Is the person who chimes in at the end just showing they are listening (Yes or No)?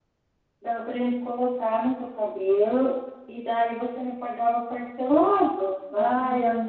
No